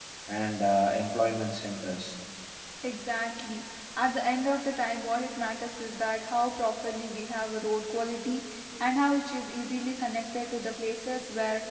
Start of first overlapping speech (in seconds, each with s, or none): none